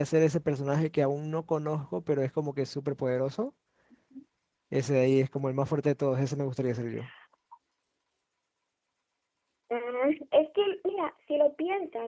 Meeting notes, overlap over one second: none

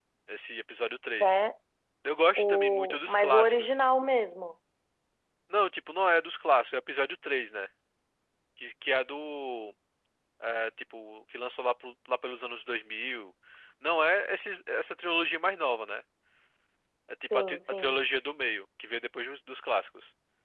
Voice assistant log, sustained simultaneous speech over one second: present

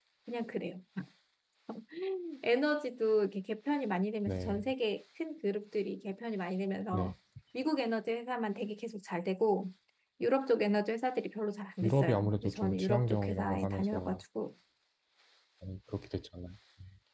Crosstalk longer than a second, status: present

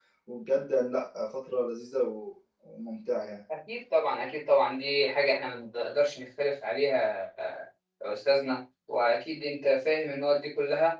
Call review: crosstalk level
none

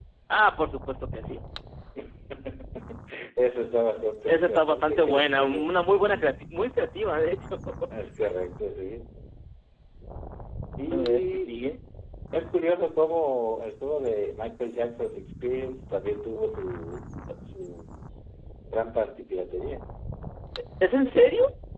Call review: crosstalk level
present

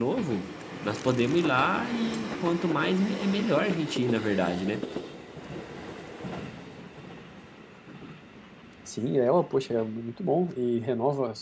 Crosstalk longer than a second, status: none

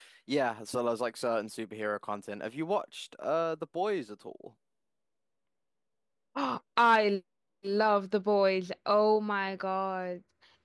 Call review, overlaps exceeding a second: none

